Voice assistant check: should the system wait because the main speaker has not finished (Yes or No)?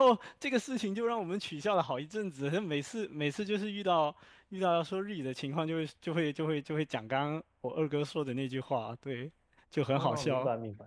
No